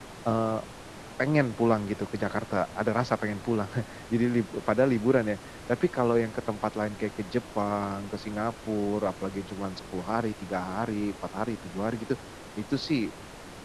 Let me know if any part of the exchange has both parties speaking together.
No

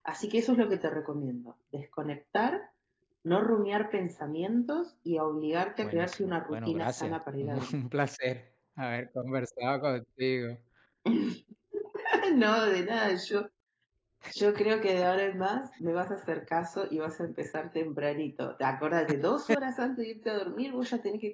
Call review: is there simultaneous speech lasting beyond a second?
Yes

